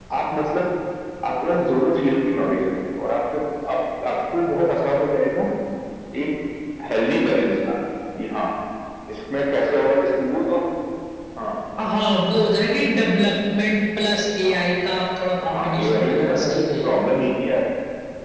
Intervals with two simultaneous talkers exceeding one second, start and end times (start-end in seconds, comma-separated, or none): 15.5-17.0